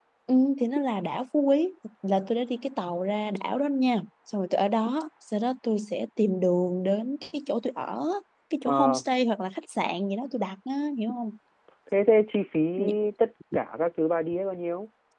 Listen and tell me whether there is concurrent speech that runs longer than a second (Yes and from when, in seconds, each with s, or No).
No